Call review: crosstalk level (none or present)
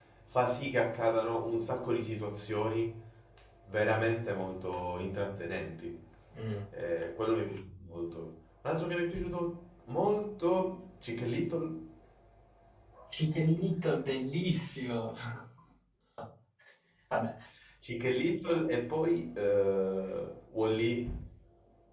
none